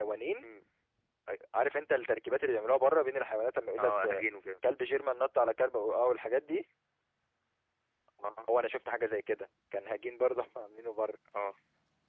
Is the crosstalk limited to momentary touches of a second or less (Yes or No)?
Yes